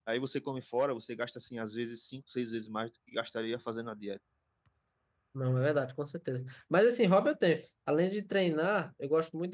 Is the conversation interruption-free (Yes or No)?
Yes